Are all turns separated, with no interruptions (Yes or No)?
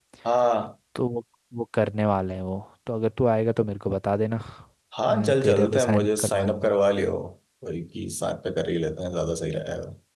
No